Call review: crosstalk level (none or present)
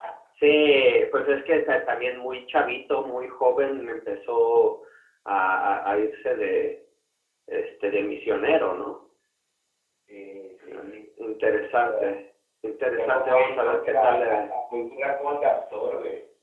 present